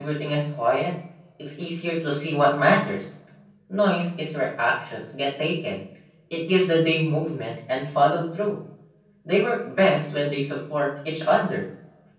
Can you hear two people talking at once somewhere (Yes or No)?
No